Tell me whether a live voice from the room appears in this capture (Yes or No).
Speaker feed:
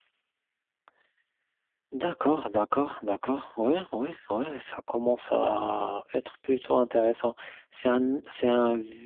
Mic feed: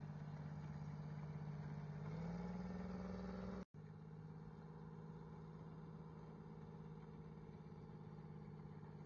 No